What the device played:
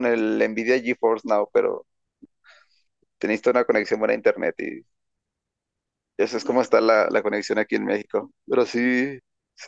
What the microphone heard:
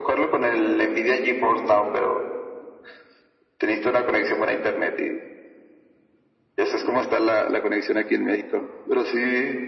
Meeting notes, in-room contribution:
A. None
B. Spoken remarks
A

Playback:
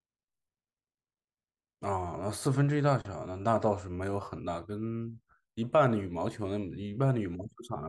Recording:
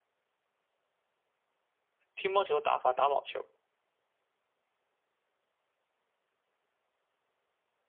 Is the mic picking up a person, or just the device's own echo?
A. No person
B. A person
B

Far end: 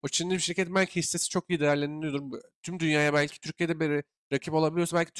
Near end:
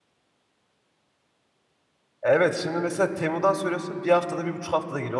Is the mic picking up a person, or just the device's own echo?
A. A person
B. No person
A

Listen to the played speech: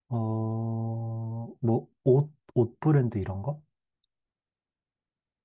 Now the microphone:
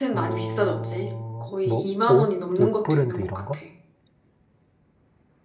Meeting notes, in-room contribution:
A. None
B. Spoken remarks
B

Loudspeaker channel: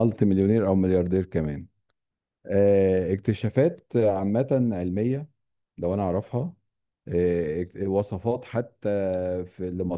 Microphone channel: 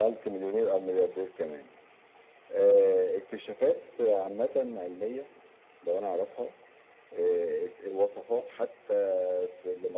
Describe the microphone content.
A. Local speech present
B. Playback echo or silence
B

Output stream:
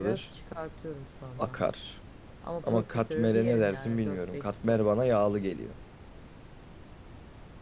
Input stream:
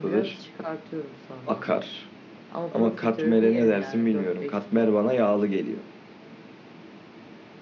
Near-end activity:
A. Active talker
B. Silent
B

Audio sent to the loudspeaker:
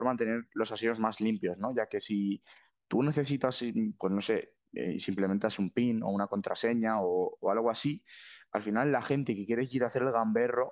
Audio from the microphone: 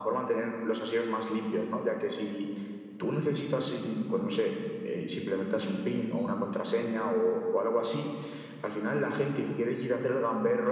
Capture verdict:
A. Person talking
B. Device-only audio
B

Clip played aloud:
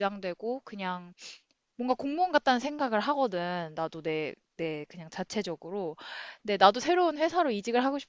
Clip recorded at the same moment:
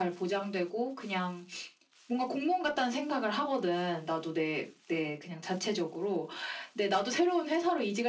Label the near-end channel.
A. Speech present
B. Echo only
B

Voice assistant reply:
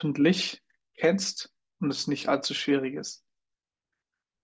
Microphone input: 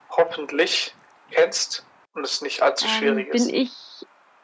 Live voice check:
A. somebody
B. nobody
A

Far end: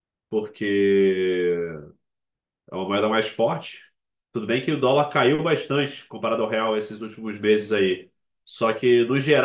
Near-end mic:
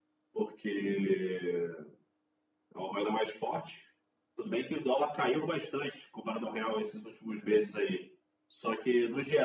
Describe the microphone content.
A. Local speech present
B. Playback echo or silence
B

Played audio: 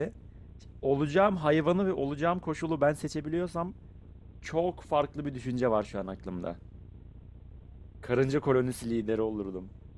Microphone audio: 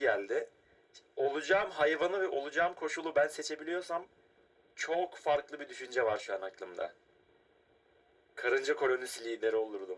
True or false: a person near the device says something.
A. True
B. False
B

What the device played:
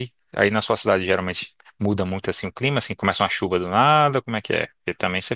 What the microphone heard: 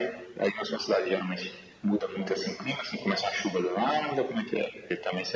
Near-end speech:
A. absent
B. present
A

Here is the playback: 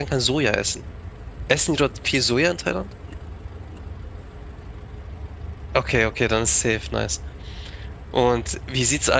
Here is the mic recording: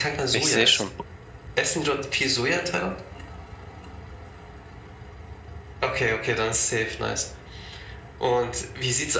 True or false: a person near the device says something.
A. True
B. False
A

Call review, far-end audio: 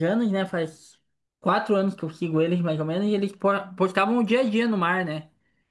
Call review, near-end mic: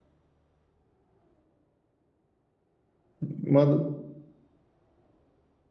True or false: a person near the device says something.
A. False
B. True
B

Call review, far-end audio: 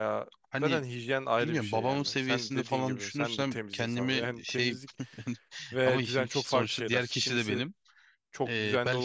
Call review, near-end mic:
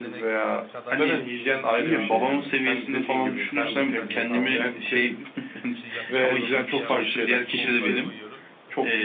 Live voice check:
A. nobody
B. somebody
B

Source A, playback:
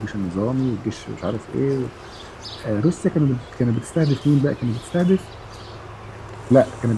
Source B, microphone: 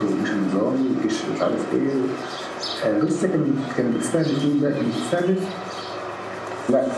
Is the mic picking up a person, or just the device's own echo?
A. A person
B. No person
B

